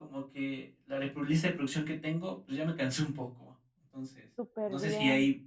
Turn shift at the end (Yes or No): No